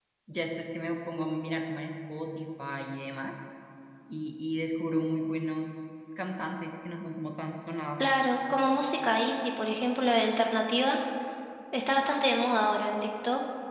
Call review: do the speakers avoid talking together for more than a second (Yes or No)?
Yes